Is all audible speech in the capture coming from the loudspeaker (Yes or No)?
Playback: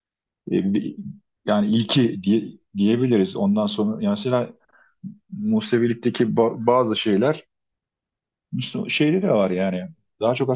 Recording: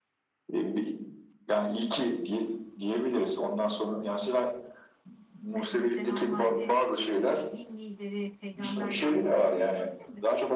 No